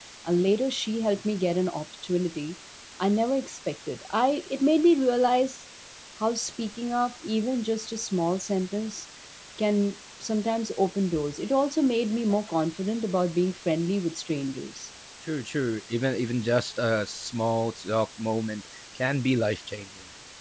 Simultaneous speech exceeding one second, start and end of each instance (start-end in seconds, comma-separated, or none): none